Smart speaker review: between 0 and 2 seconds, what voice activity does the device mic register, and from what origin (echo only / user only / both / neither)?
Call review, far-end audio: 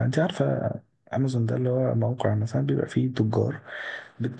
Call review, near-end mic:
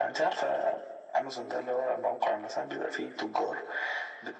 echo only